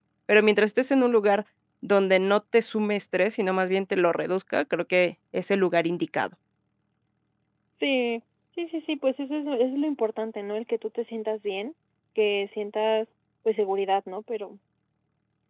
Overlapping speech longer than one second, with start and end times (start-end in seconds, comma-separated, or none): none